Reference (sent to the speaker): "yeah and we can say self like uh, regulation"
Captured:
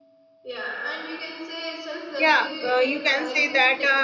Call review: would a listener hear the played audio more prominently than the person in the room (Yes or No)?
No